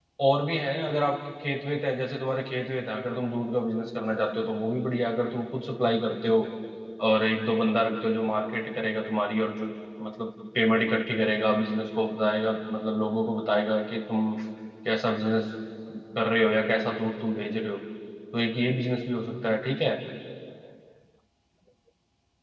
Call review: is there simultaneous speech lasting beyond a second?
No

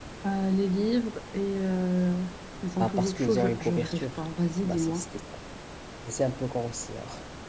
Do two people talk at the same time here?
Yes, from 2.8 s

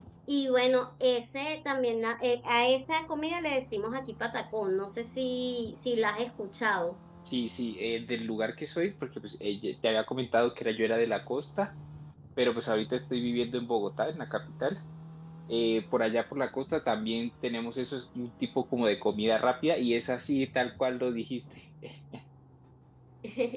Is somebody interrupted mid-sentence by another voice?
No

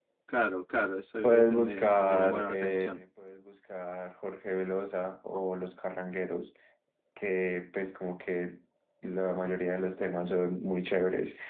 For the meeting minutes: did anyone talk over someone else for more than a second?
Yes, from 1.2 s

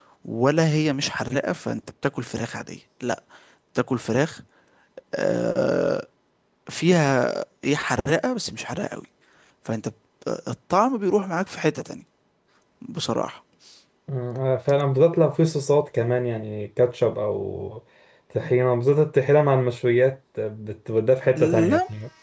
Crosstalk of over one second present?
No

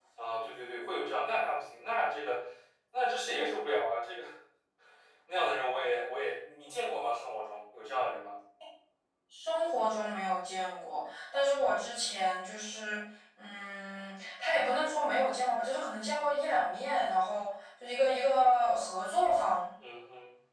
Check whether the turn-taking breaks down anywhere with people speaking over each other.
No

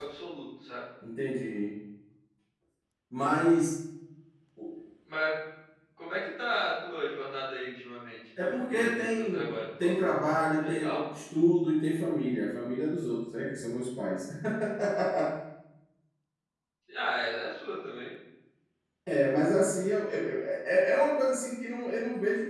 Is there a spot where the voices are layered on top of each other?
Yes, from 8.7 s

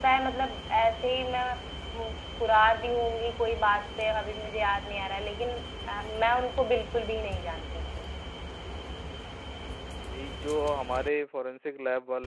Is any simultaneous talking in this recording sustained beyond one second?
No

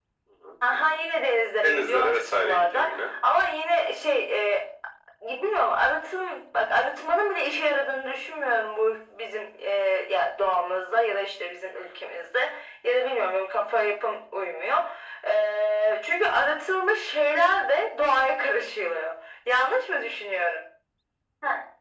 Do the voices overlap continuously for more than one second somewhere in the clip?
Yes, from 1.6 s

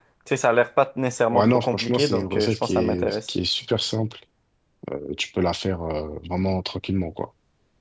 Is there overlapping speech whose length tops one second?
Yes, from 1.3 s

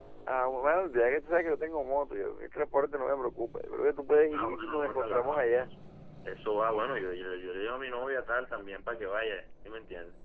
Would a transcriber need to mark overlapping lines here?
Yes, from 4.3 s

